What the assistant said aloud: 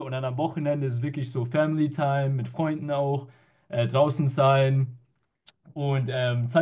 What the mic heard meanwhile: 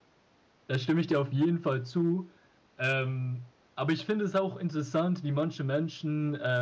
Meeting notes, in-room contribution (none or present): present